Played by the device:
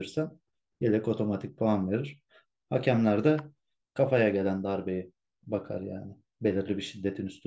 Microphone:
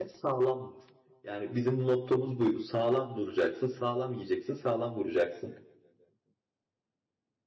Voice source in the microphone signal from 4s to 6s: user only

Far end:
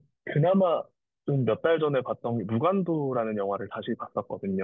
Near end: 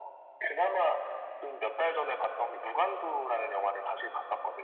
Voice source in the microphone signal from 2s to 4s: echo only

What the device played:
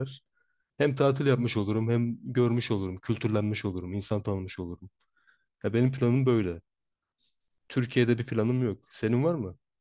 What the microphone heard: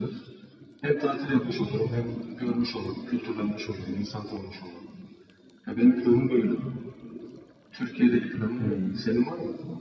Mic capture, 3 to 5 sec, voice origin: echo only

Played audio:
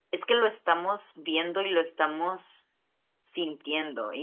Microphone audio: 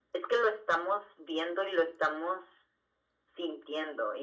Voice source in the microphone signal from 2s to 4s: echo only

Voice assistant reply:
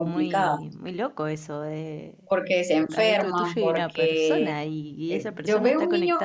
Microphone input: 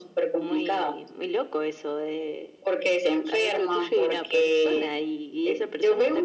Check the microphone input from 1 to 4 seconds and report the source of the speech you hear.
echo only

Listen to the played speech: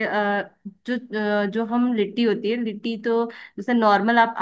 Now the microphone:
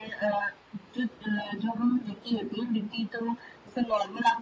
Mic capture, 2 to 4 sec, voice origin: echo only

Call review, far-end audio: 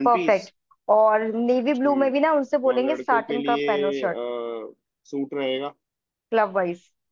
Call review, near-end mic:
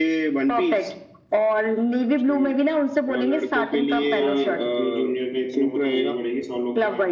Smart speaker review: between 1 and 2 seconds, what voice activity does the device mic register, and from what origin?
echo only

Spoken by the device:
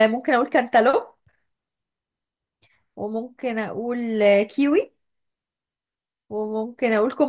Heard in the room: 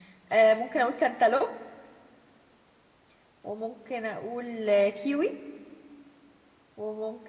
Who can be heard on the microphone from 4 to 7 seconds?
echo only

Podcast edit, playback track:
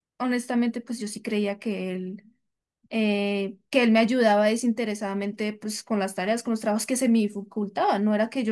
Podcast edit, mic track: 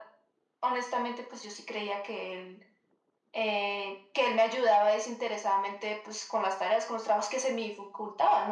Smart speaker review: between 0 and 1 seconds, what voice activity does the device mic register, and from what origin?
echo only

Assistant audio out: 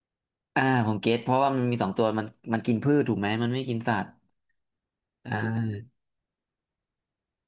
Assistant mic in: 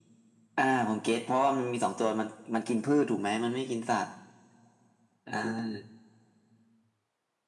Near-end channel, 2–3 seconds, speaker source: echo only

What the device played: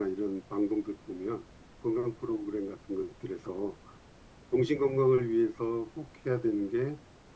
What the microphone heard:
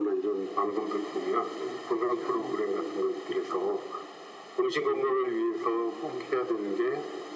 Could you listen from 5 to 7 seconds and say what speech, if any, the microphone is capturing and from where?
both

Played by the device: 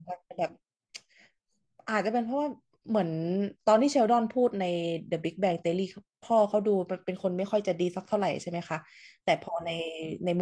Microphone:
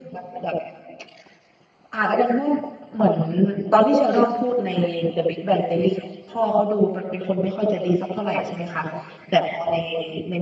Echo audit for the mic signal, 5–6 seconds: echo only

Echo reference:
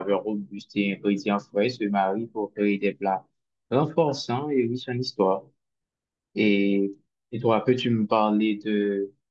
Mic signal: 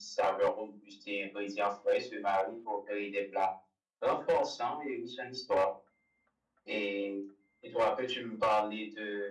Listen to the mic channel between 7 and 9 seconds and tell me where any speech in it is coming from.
echo only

